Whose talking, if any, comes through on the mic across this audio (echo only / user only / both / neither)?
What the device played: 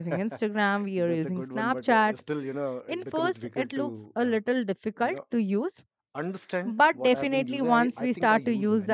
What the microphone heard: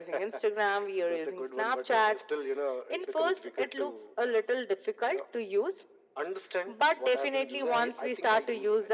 echo only